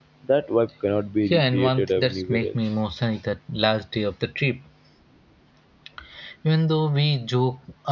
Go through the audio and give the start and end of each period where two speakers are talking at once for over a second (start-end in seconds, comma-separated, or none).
1.3-2.6